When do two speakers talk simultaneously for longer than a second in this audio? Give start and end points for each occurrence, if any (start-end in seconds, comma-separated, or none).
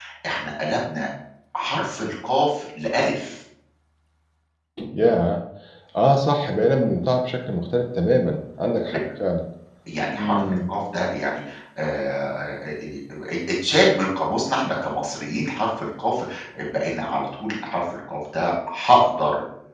none